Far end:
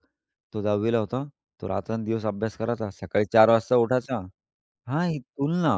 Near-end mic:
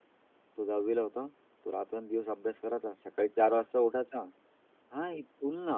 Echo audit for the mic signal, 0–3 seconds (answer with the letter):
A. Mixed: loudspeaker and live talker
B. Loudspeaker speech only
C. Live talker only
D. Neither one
B